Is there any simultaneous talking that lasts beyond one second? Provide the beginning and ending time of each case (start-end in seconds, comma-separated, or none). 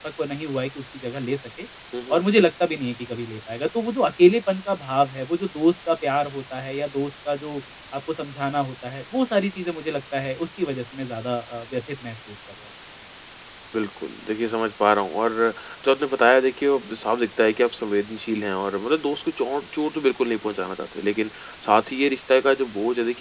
none